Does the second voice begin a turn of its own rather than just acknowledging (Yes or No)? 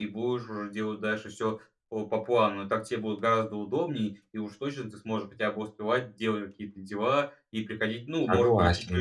No